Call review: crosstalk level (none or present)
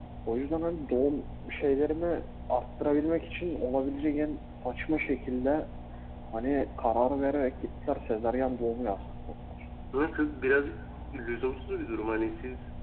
none